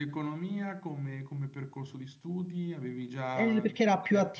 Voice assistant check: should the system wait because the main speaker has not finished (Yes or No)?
No